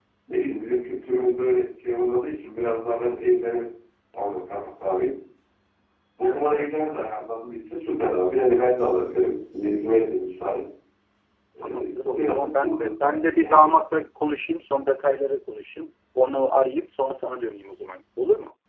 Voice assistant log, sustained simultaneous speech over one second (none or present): present